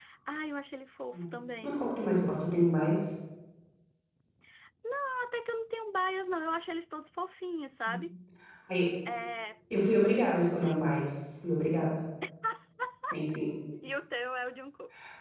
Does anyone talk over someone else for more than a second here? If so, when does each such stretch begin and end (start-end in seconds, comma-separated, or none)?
none